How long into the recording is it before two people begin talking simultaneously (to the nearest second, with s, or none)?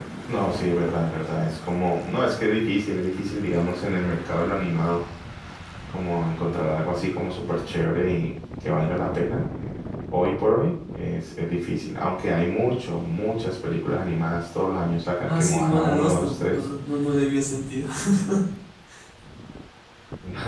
15 s